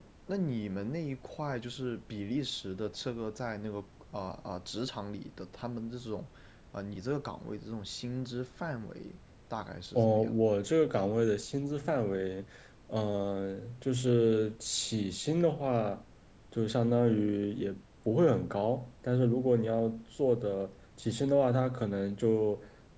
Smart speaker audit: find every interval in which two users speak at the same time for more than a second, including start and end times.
none

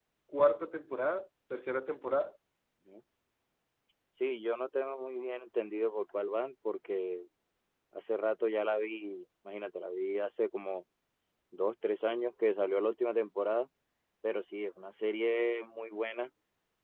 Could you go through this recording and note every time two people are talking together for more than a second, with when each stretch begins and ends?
none

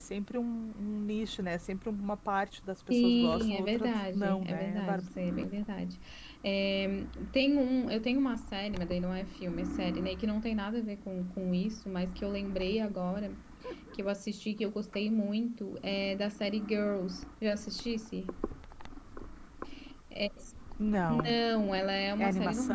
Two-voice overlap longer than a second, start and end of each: 2.9-5.1

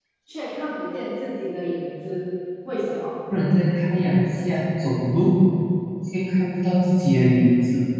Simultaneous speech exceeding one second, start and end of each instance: none

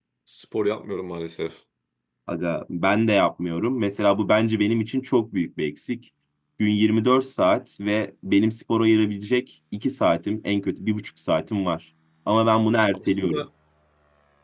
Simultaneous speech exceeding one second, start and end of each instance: none

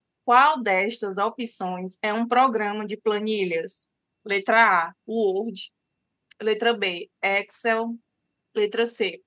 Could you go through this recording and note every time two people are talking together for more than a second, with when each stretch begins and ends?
none

